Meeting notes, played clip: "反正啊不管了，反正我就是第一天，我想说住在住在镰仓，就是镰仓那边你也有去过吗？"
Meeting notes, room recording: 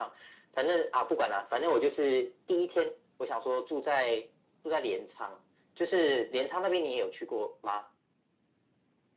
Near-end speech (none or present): none